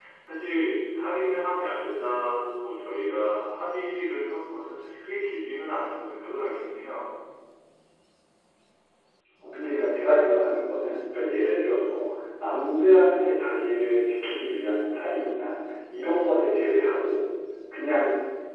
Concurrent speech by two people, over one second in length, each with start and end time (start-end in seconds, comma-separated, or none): none